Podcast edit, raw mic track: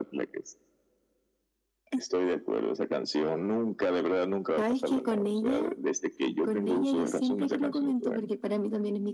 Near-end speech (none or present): none